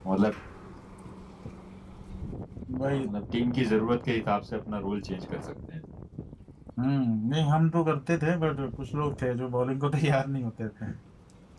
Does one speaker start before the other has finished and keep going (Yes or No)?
No